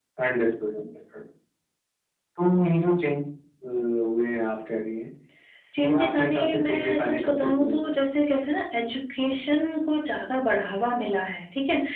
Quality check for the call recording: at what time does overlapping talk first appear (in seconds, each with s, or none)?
5.8 s